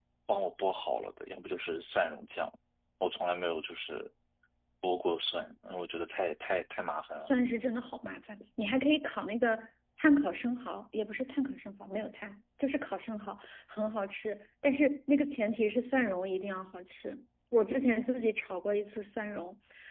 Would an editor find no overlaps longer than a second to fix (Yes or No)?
Yes